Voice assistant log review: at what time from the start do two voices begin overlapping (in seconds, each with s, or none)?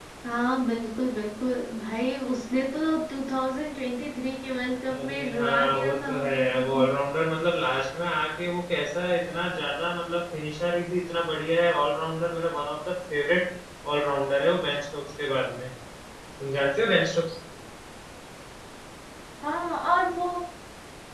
4.9 s